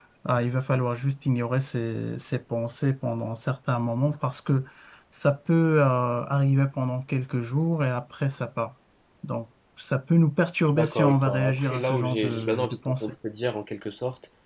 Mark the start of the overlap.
11 s

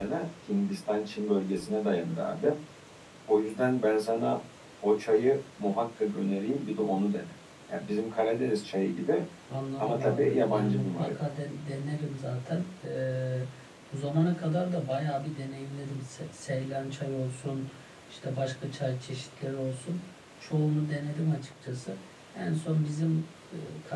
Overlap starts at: 10 s

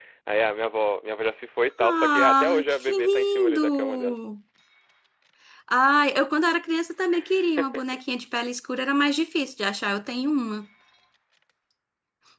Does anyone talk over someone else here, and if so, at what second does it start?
2 s

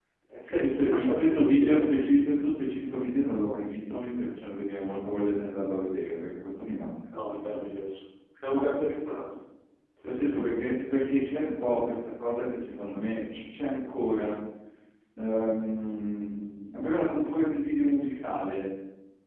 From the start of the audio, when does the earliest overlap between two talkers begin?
1 s

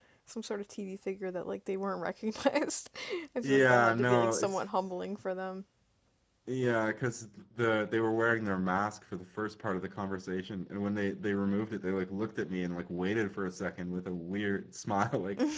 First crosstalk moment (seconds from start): 3 s

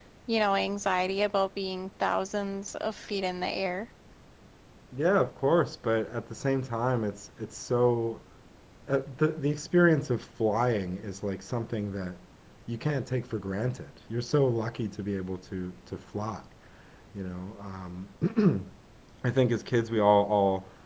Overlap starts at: none

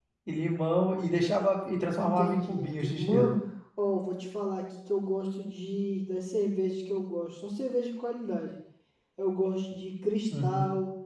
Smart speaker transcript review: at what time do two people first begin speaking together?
2 s

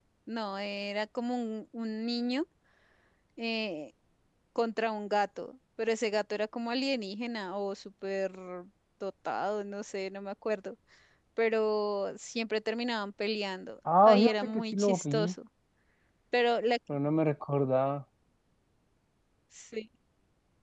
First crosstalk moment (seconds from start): 14 s

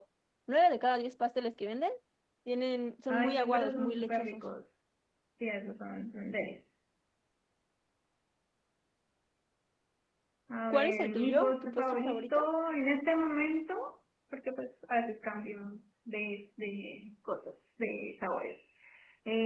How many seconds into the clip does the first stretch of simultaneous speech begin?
3 s

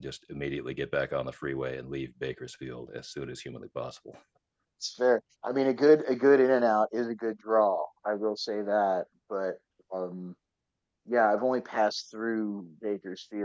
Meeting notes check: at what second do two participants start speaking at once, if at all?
none

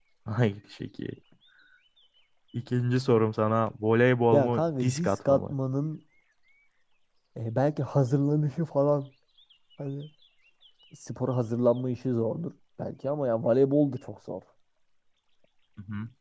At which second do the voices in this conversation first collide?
4 s

